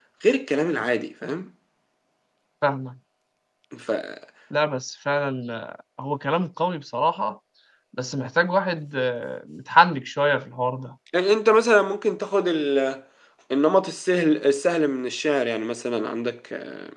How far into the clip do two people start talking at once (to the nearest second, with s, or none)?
none